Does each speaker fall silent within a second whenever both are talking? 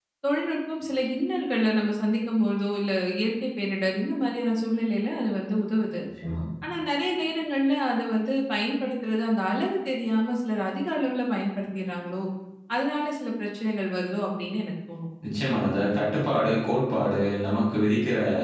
Yes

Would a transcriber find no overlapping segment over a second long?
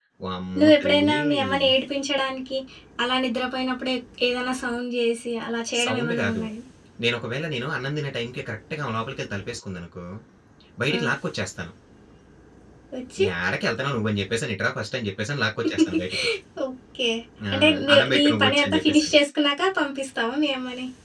No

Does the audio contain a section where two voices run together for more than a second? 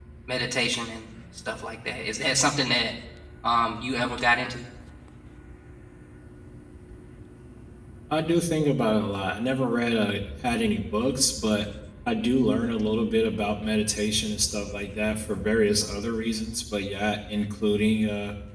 No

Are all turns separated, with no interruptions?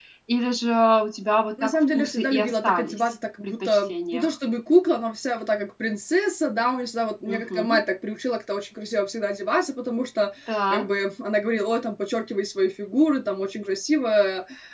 No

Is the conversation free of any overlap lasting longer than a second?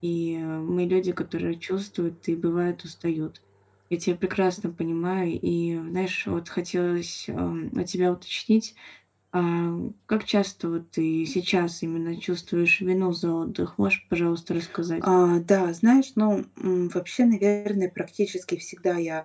Yes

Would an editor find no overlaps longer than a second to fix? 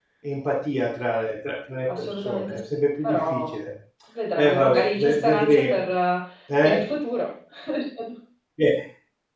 No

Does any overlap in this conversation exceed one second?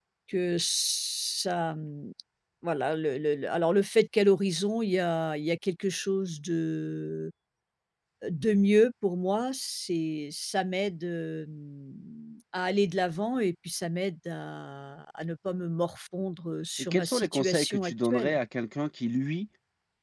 Yes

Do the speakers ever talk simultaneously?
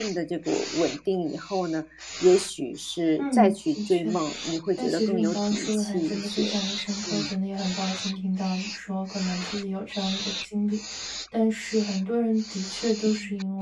Yes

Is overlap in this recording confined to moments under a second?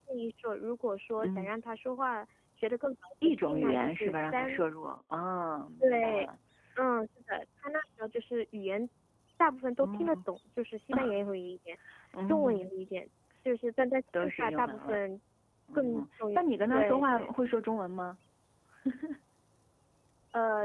No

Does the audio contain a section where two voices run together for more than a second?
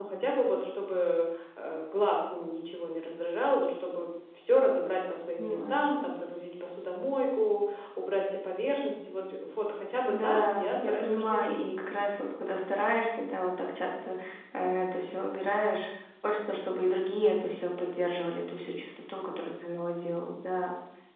Yes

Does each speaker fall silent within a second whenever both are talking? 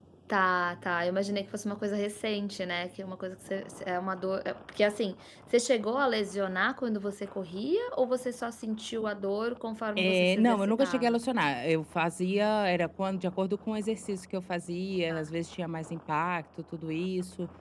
No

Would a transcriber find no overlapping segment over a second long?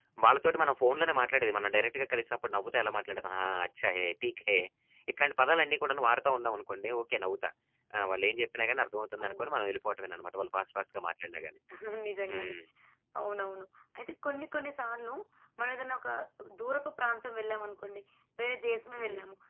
Yes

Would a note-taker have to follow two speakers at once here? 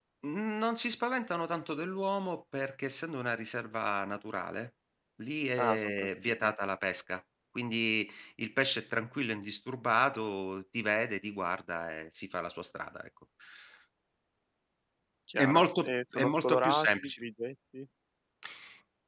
Yes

